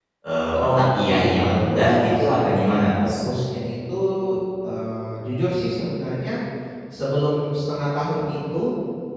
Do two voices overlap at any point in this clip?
Yes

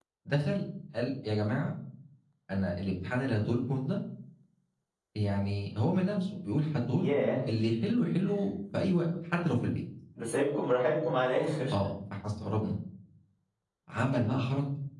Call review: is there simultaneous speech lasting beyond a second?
No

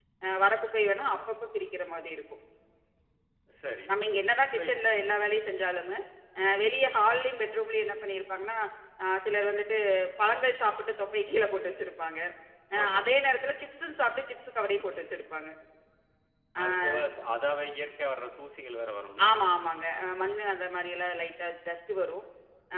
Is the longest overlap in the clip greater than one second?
No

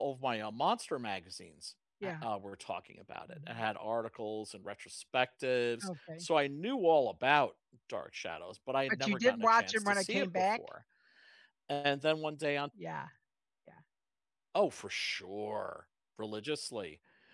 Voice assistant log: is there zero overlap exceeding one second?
No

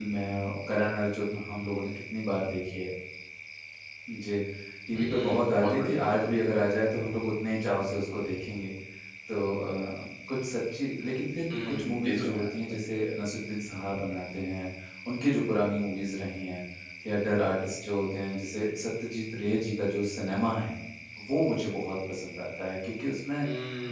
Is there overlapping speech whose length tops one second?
Yes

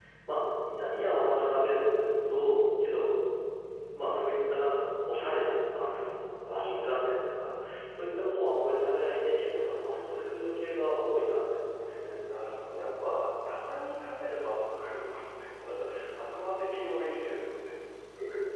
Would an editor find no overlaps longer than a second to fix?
Yes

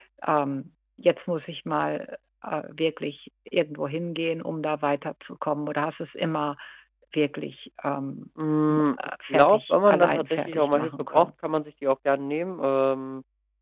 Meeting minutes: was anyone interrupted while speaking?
Yes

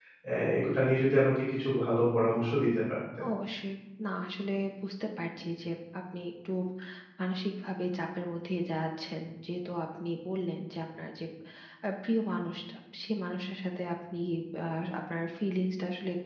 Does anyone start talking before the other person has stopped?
No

